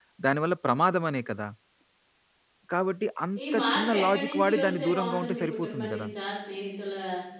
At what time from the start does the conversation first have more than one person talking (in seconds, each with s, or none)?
3.5 s